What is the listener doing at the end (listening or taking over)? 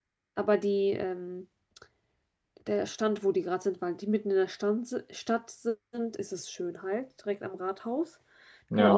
taking over